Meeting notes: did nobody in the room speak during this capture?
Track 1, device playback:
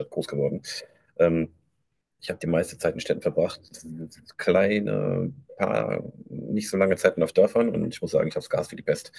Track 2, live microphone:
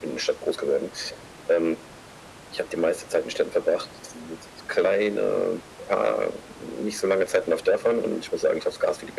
Yes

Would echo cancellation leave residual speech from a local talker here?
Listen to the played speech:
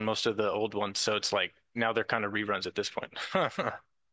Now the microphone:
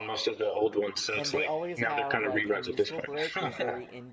Yes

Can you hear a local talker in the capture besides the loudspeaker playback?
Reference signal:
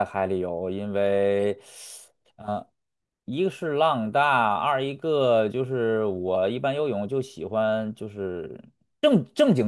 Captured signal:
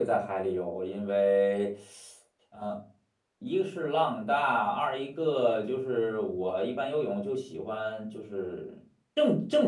No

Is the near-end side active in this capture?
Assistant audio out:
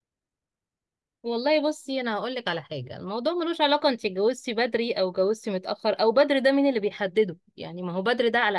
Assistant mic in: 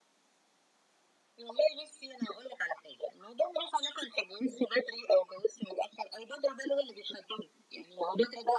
No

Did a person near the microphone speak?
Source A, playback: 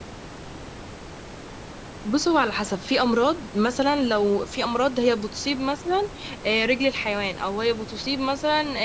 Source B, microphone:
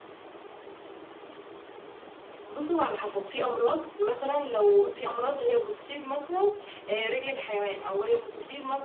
No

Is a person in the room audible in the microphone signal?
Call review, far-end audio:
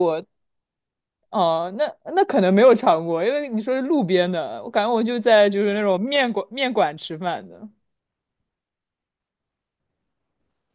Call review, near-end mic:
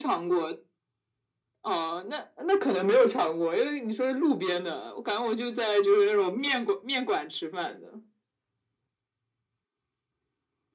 No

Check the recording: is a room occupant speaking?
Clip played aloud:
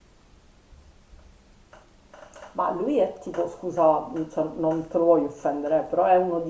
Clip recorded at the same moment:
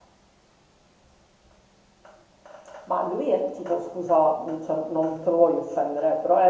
No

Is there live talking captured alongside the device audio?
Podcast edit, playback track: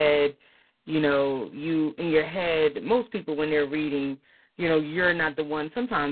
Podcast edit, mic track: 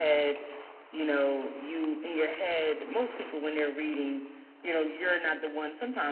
No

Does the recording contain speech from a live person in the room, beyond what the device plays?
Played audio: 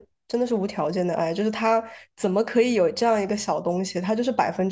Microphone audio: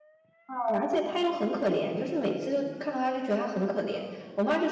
Yes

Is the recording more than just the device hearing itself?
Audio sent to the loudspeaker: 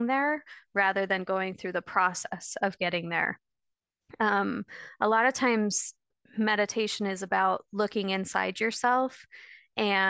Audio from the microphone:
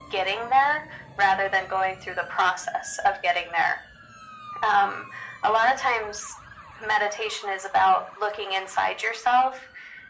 No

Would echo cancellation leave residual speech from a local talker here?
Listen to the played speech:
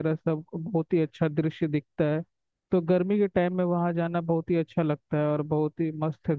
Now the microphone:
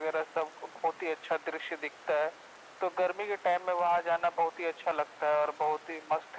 No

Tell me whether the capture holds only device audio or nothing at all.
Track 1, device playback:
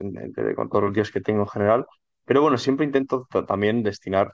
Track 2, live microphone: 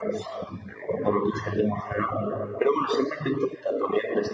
Yes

